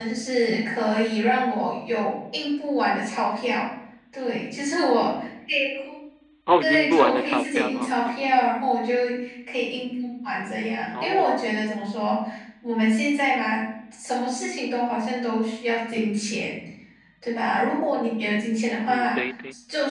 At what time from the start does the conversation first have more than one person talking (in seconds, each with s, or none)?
6.6 s